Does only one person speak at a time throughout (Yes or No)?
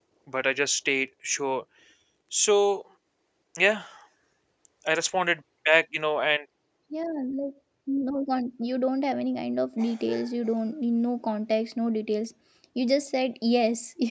Yes